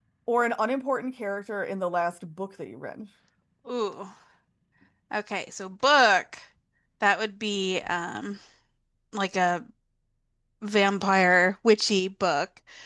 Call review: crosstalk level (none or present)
none